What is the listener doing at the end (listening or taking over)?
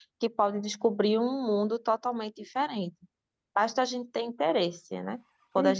listening